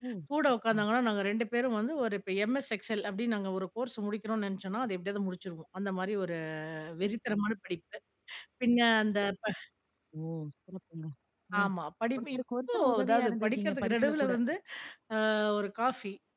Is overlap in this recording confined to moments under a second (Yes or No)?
No